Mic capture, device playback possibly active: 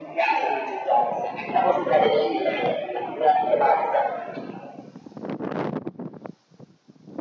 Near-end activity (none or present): none